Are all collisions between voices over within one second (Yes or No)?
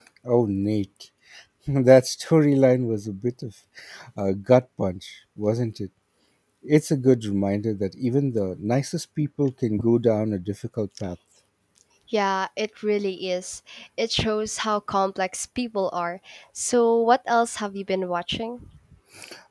Yes